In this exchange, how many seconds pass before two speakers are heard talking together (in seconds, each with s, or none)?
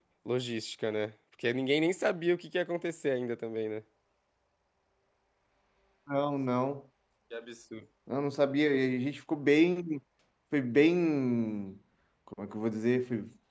none